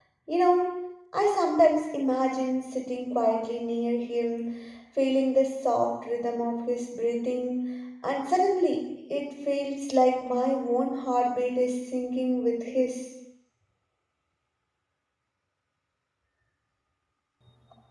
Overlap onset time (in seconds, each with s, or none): none